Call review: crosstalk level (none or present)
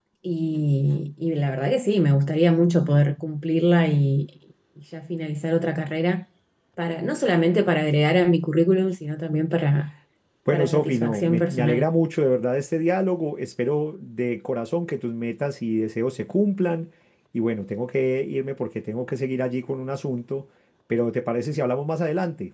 present